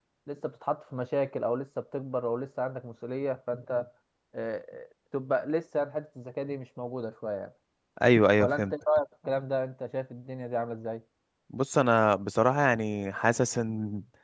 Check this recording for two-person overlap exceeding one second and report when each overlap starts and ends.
none

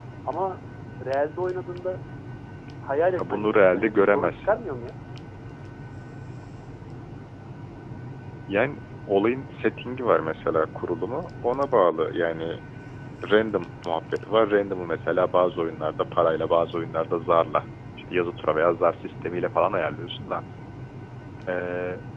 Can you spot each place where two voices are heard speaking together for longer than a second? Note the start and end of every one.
3.2-4.6

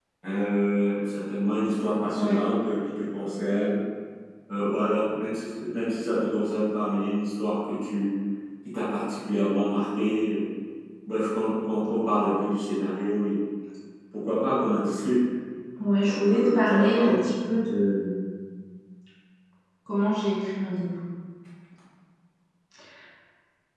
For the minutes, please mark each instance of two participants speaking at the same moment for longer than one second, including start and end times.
16.0-17.2

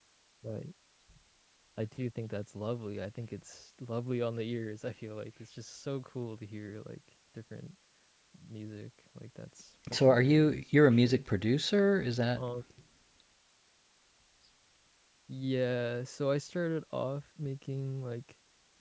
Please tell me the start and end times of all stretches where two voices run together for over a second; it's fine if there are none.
9.9-11.2

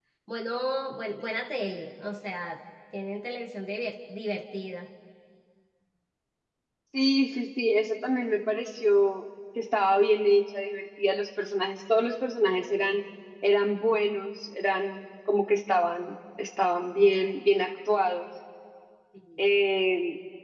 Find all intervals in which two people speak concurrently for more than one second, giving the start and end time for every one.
none

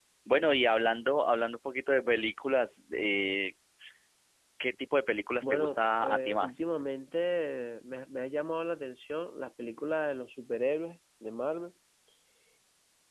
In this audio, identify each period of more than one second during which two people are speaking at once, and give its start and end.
5.4-6.6

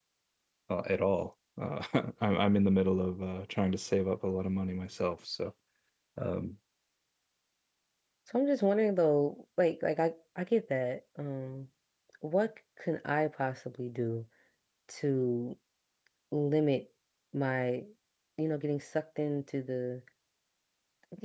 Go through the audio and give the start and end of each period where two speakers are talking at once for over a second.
none

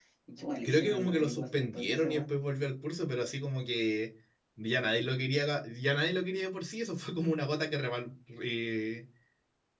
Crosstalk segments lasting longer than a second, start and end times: 0.6-2.3

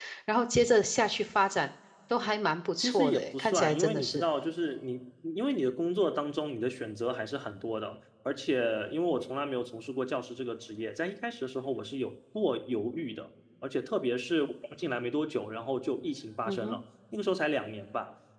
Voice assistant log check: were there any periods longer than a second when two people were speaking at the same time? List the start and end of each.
2.8-4.3

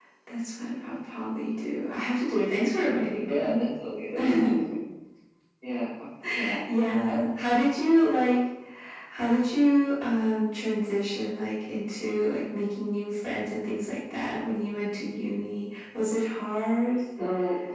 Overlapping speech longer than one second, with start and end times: none

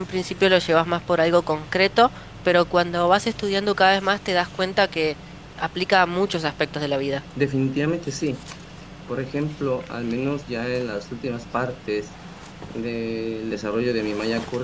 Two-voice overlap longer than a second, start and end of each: none

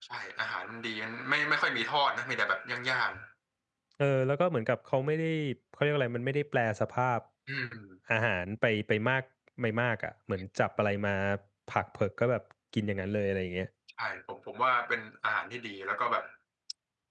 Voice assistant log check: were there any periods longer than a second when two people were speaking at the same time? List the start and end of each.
none

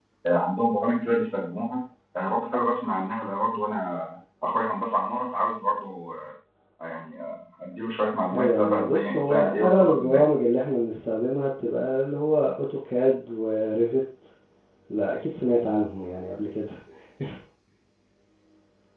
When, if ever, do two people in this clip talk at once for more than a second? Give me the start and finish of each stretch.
8.3-10.2

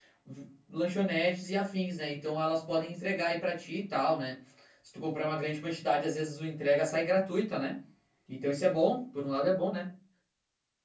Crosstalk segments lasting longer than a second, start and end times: none

